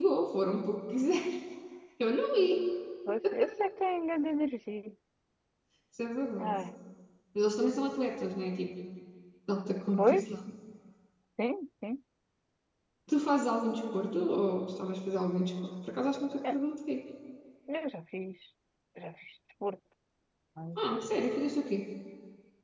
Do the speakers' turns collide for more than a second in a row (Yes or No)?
No